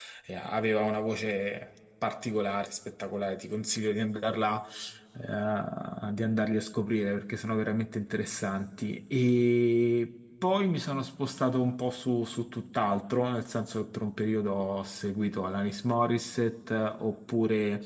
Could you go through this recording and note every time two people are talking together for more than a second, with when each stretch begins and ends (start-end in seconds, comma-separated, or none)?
none